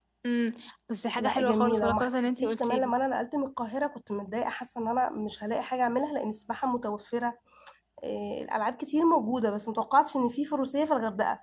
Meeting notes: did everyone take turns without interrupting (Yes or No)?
No